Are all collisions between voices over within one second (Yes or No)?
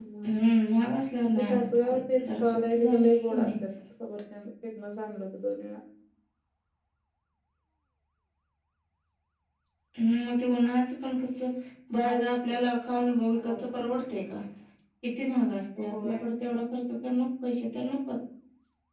No